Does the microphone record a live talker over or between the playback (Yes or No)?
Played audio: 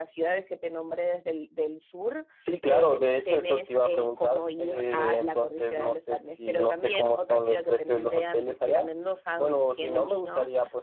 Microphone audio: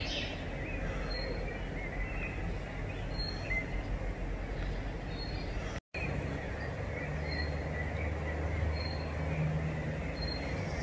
No